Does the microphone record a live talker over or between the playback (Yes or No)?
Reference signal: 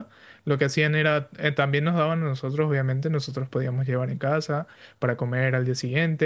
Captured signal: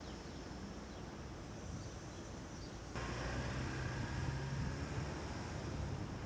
No